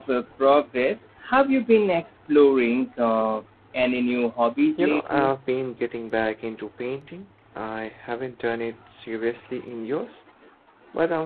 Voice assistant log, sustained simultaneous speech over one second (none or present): none